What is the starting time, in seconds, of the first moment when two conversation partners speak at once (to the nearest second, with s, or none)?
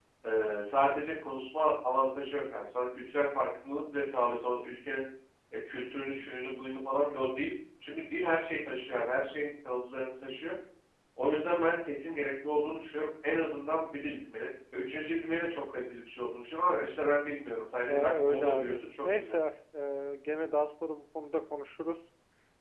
18 s